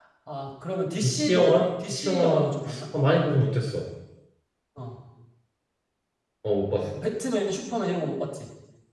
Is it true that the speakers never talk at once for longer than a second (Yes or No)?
No